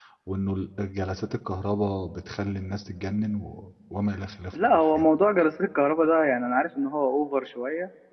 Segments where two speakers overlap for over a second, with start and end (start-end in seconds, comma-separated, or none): none